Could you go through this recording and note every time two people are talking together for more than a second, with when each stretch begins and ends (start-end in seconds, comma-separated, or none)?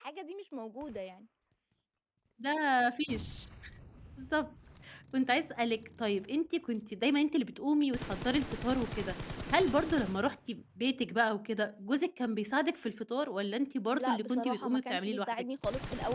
13.9-15.3